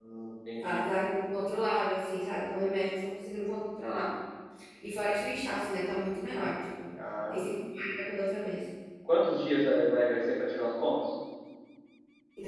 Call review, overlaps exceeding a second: none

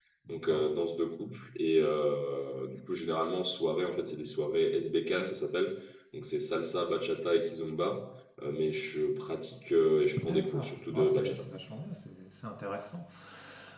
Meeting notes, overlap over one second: present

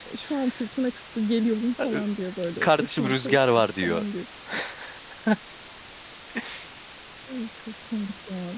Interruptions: present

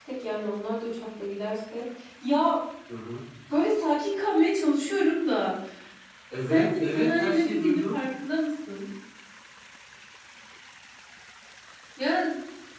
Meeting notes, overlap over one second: present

